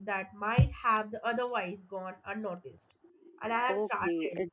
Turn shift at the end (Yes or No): Yes